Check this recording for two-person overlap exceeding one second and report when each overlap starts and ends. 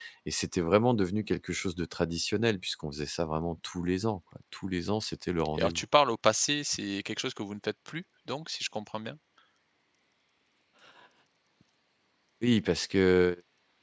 none

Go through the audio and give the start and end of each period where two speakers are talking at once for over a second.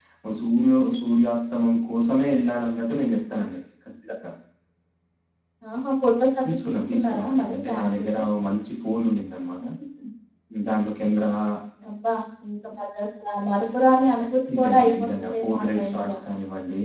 6.4-8.2, 14.6-16.1

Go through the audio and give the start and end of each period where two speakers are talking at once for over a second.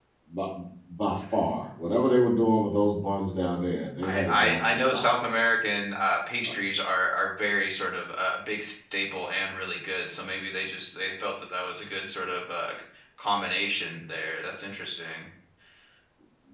4.0-5.4

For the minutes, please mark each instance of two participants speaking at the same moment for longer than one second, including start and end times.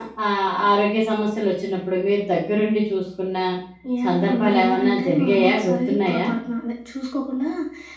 4.0-6.2

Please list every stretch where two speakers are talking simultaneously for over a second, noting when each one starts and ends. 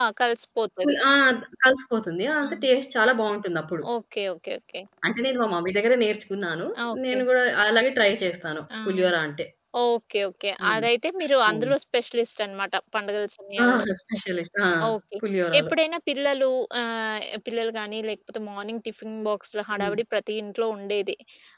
none

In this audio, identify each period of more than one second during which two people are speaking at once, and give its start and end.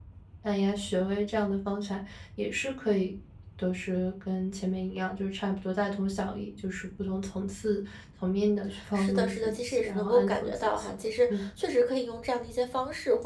8.9-10.9

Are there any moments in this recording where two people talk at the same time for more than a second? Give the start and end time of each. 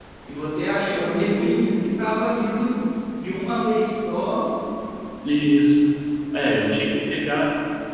none

